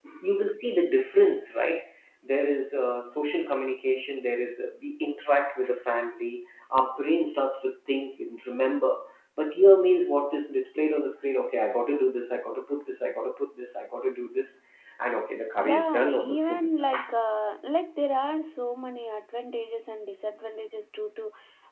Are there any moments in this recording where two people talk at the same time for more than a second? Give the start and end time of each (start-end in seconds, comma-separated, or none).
15.6-16.9